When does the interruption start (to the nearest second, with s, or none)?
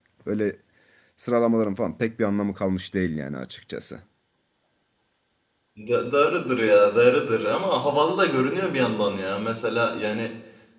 none